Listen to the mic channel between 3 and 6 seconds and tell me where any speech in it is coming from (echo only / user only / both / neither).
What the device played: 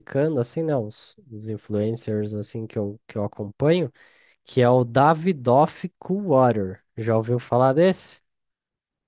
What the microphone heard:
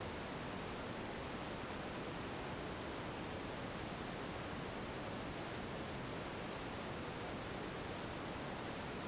neither